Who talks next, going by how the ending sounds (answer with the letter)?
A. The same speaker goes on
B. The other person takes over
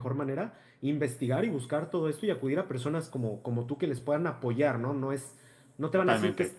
A